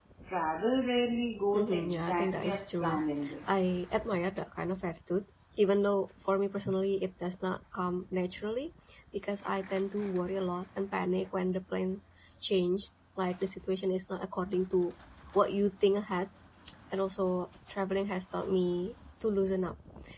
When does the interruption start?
1.5 s

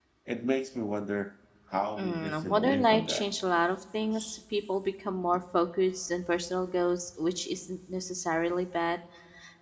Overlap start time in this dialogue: 2.0 s

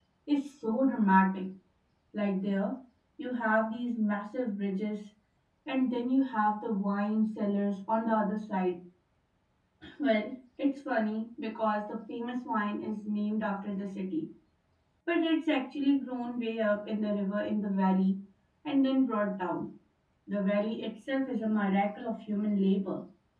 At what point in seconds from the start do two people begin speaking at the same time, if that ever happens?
none

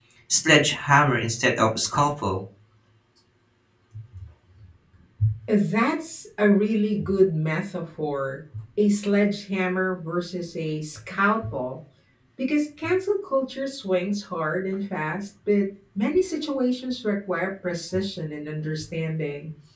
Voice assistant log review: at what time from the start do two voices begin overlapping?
none

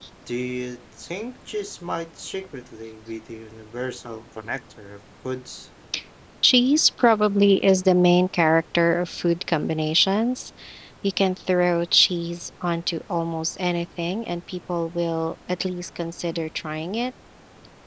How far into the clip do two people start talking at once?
none

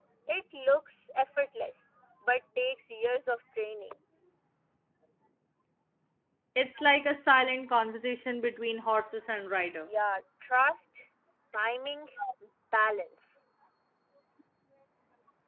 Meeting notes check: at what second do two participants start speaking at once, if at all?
none

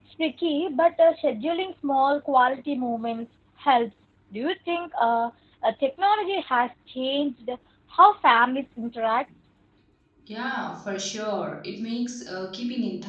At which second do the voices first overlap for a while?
none

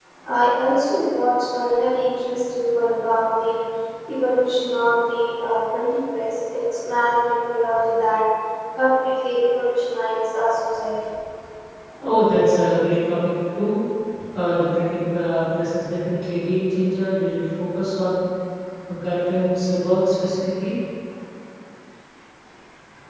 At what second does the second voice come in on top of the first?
none

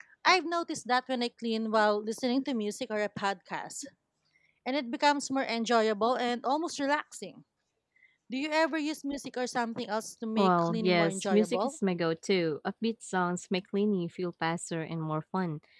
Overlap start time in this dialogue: 10.4 s

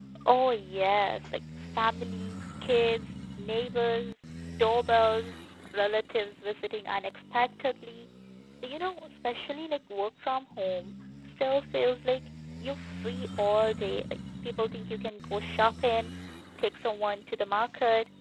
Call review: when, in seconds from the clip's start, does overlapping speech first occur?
none

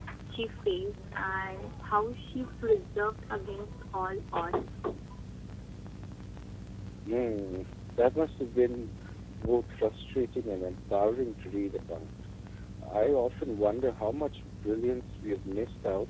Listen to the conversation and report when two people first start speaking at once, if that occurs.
none

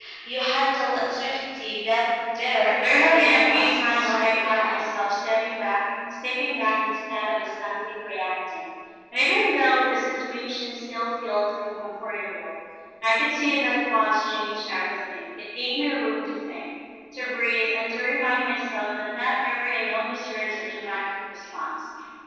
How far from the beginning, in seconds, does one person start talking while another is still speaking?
2.8 s

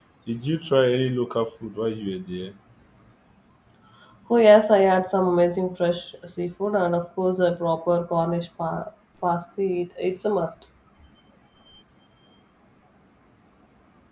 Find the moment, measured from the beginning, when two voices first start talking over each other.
none

